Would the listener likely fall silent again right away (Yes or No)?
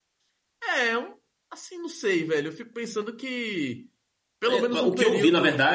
No